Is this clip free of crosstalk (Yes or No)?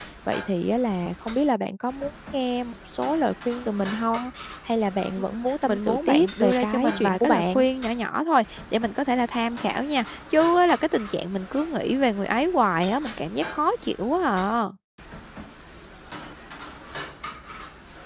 No